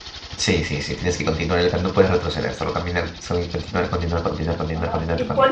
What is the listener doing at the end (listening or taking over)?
taking over